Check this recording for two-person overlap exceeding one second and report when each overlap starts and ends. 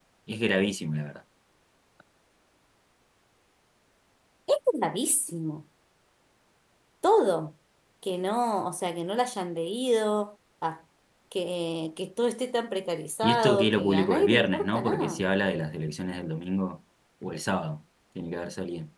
13.2-15.2

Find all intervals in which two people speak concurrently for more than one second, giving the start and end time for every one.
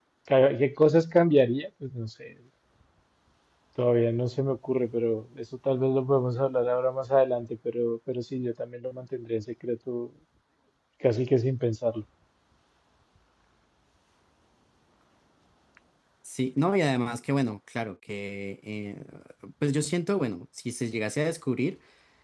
none

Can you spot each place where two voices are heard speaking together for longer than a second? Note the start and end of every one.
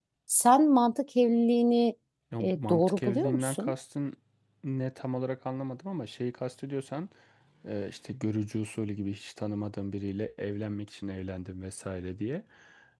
2.4-3.7

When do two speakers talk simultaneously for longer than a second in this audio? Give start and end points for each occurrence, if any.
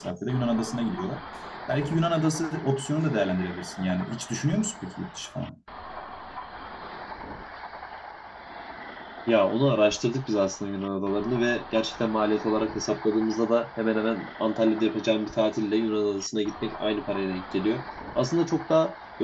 none

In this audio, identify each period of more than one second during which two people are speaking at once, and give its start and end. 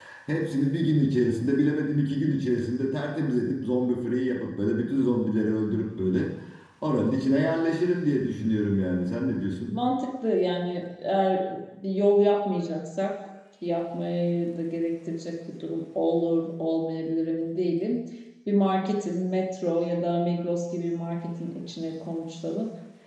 none

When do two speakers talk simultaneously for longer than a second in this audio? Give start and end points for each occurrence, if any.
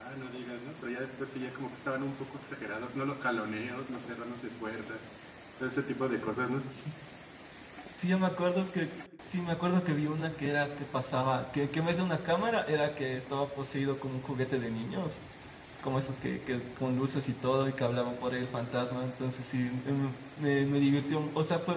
none

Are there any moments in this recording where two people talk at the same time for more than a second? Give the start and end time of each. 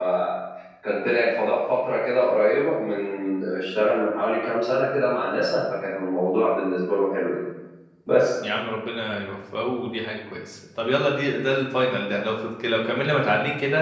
none

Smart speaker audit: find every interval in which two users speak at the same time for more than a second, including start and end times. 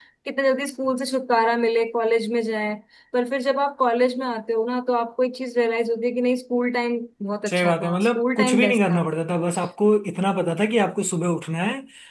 7.5-9.0

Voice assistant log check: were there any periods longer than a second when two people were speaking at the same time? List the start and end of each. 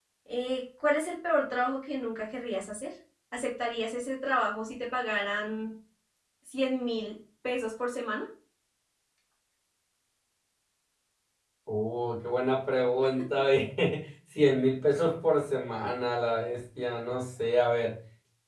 none

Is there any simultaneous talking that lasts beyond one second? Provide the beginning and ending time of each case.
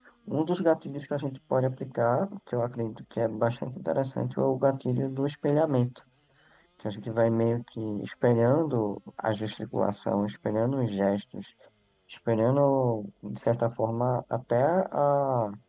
none

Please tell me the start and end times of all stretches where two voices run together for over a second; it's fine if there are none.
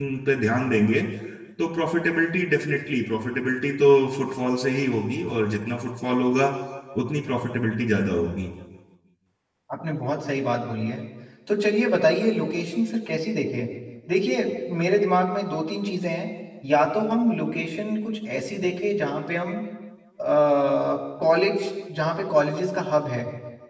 none

